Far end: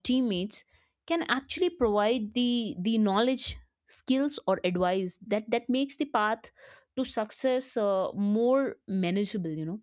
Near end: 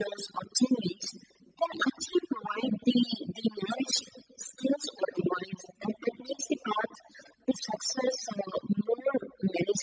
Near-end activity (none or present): none